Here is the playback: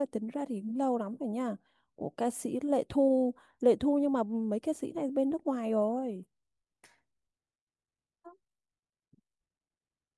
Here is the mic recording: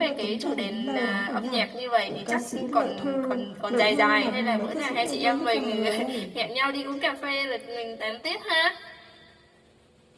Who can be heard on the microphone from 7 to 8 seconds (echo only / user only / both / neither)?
user only